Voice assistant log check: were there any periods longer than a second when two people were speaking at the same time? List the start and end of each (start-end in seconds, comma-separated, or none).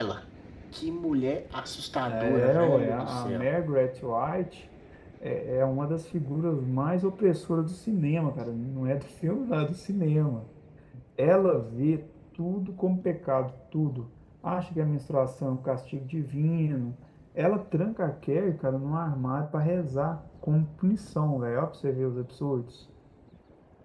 2.2-3.5